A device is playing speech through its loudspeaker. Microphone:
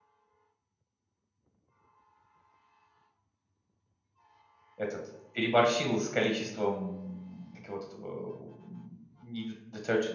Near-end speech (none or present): present